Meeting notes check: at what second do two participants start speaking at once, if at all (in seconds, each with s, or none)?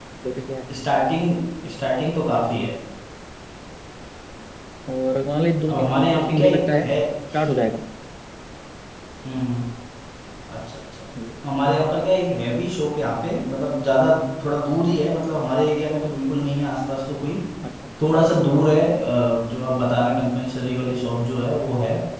5.7 s